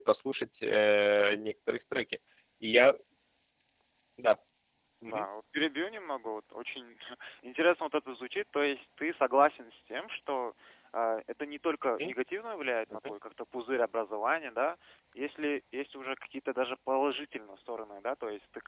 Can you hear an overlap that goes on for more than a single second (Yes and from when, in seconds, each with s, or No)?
No